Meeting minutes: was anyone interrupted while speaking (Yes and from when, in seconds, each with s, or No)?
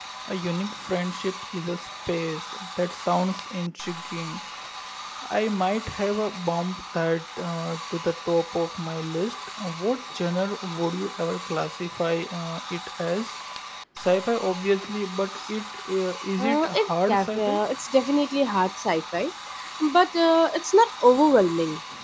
Yes, from 16.4 s